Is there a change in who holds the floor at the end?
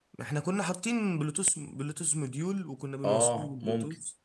Yes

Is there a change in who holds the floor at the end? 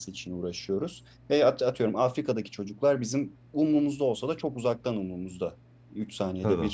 No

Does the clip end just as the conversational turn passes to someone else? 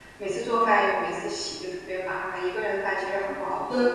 Yes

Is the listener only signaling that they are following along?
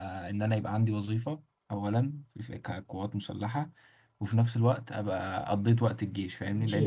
No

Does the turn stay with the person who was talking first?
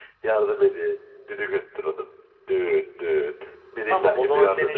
No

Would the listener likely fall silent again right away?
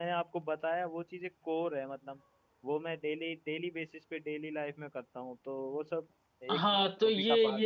No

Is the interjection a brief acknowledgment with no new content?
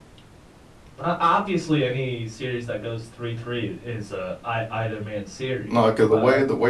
No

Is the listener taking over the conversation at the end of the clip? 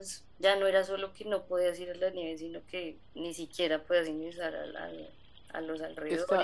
Yes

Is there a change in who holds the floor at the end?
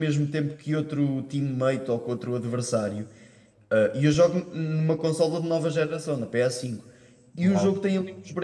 No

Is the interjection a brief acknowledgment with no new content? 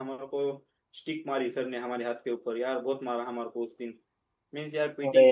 Yes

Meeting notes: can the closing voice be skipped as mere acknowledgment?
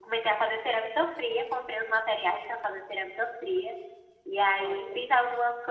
Yes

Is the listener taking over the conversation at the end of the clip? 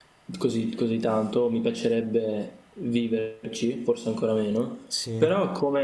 No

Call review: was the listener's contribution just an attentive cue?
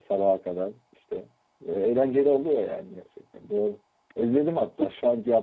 Yes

